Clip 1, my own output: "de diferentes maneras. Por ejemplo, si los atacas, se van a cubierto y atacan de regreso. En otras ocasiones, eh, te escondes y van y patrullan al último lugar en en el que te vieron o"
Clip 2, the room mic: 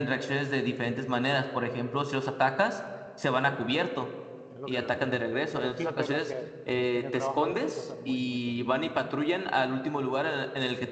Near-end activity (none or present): present